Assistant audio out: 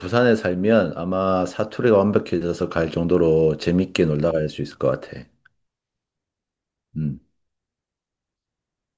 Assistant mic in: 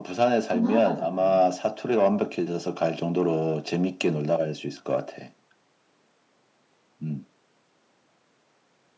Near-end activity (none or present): present